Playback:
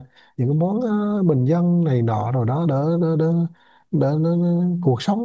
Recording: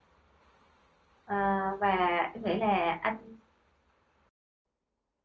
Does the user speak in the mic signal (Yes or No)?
Yes